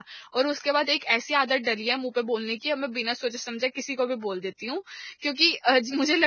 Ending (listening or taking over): listening